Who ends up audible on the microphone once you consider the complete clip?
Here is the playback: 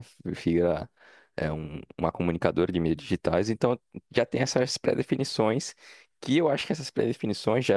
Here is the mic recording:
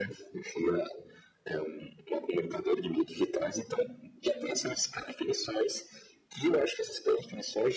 echo only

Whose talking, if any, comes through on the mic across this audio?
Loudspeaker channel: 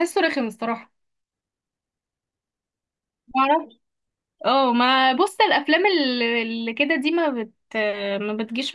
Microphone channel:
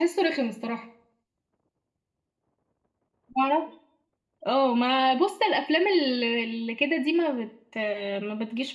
echo only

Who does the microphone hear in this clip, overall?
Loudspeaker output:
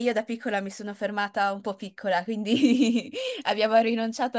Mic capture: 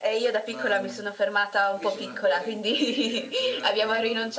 both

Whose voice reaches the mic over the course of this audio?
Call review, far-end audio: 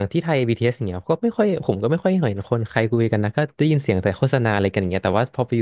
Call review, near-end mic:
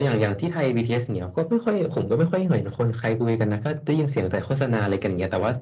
echo only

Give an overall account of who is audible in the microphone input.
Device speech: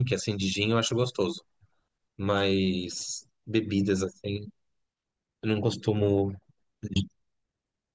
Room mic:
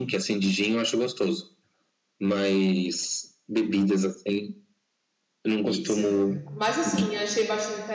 both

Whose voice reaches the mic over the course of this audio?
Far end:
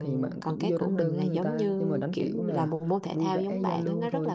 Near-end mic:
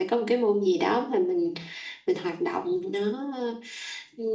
user only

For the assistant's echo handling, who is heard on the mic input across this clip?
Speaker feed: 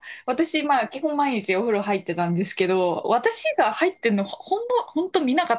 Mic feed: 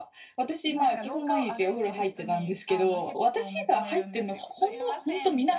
both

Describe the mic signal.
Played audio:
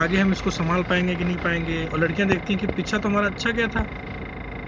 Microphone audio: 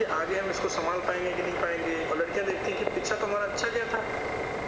echo only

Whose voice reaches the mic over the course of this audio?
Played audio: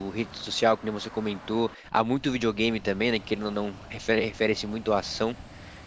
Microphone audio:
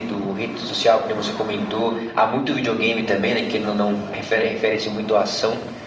echo only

